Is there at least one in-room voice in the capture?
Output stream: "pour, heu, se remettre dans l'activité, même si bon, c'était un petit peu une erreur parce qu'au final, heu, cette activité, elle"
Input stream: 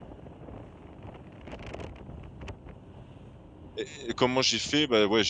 Yes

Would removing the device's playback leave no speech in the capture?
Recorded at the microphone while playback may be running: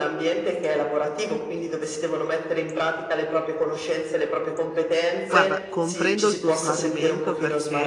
No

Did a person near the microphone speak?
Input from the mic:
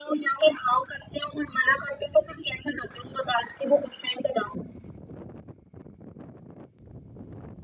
No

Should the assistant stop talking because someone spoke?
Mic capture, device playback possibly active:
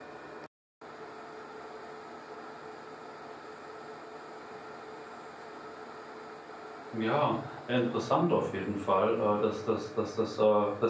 Yes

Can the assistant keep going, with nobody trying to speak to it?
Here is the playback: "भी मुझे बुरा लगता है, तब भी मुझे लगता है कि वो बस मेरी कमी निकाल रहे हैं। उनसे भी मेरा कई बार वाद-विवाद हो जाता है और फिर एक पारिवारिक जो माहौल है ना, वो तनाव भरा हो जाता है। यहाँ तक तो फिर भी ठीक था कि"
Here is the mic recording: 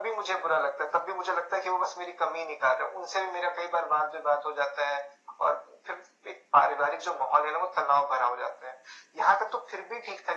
Yes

